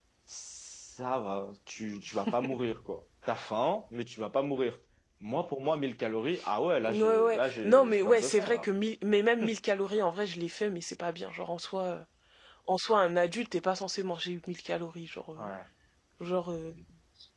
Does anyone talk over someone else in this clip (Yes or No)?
Yes